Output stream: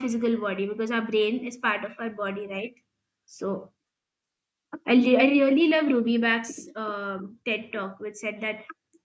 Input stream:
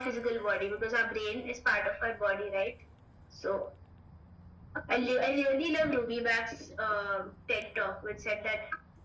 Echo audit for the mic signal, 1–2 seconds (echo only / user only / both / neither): echo only